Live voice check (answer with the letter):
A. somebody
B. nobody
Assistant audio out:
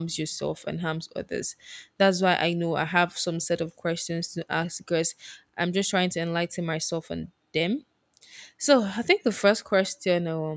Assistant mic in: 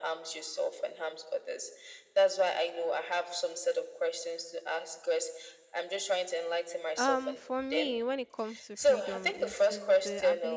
A